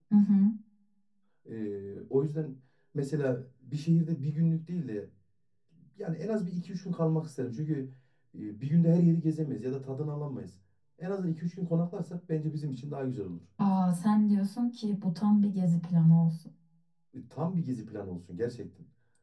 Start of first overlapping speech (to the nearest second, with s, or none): none